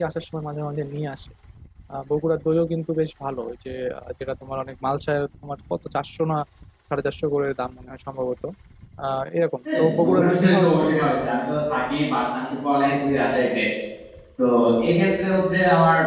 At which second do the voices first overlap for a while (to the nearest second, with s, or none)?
10 s